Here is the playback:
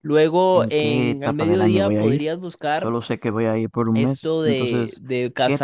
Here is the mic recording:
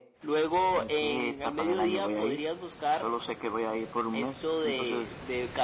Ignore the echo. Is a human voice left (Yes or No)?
No